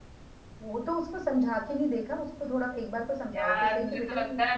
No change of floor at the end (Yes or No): No